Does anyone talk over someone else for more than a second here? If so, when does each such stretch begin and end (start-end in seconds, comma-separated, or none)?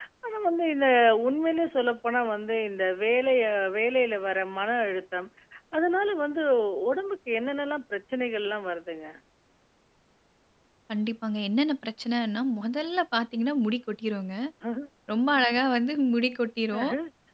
none